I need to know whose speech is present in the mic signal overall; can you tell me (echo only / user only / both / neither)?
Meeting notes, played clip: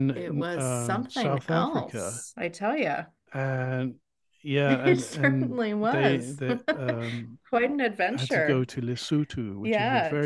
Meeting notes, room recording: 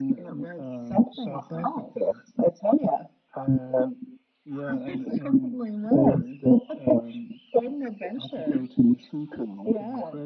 echo only